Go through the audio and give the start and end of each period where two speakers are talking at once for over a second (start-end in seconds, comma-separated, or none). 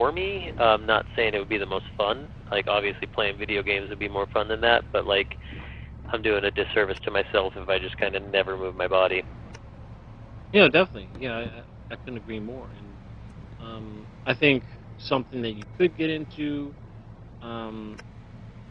none